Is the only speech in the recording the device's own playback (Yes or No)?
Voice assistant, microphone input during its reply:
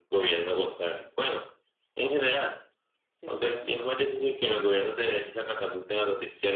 No